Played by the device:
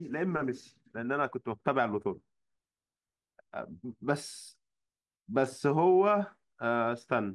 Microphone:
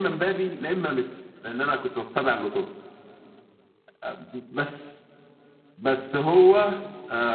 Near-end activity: none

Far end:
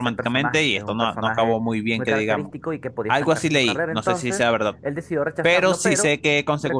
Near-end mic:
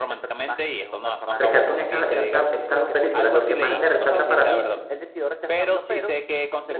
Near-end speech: present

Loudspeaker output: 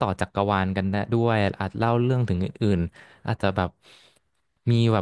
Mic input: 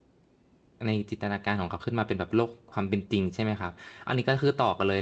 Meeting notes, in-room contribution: present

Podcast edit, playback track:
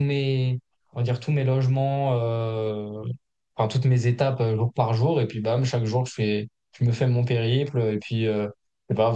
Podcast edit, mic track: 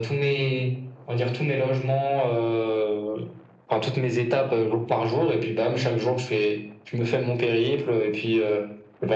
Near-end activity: none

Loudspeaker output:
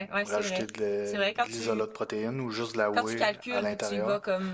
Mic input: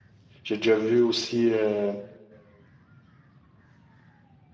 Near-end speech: present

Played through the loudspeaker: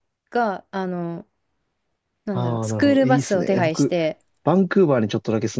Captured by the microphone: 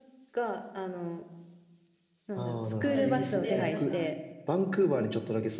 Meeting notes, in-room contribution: present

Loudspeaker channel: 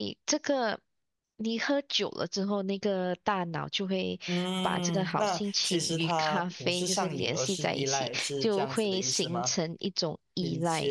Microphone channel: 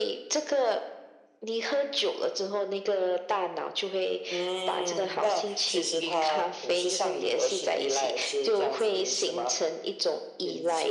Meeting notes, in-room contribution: none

